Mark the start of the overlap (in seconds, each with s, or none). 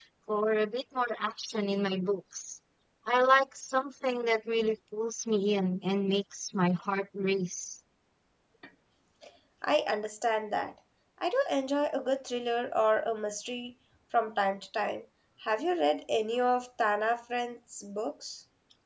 none